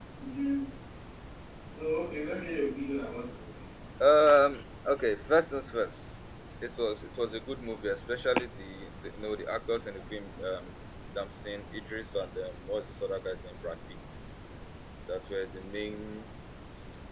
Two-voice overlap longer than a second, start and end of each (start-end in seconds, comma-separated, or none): none